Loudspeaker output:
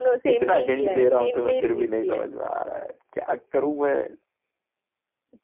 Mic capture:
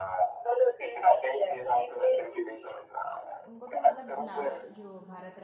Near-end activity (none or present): present